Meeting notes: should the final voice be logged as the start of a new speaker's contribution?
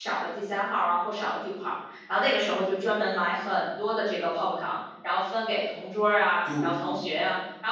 No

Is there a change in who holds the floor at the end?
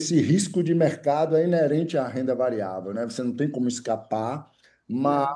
No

